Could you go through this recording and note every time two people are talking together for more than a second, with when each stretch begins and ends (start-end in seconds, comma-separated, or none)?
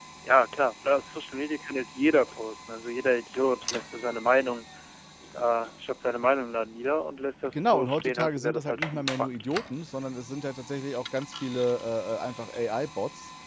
7.5-9.4